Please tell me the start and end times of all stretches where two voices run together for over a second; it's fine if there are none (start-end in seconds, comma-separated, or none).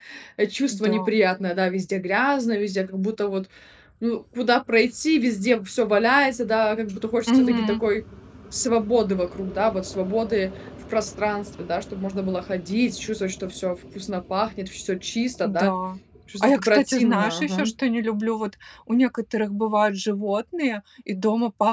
16.4-17.7